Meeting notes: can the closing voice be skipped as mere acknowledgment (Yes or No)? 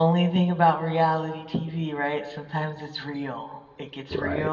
Yes